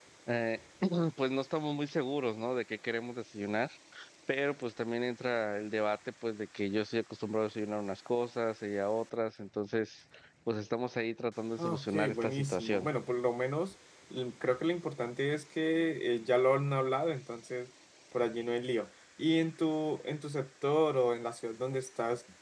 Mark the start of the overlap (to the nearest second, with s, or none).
12 s